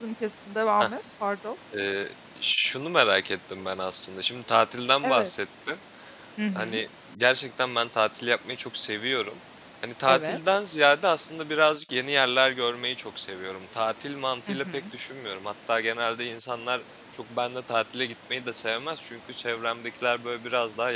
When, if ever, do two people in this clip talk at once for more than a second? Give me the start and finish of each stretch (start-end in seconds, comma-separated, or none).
none